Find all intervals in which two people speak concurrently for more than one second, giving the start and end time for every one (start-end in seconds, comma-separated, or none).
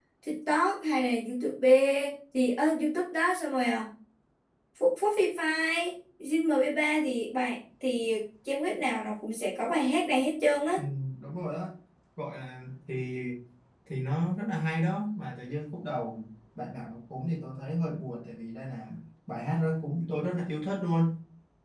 none